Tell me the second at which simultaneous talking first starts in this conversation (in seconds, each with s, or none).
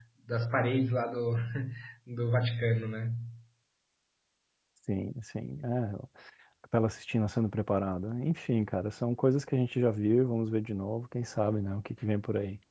none